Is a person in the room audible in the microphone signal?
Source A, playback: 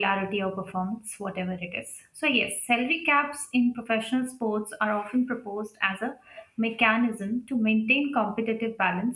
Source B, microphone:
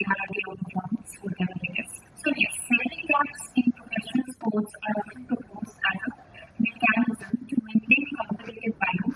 No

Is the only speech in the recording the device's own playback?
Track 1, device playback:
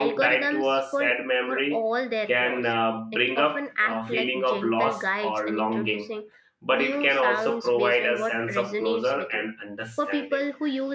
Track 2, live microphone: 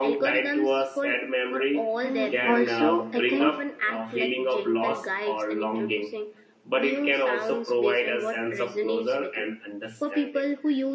No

